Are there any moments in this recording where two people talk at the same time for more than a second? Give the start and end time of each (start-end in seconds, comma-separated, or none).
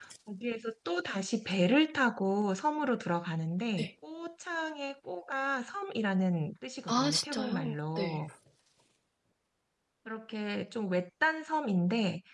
6.9-8.2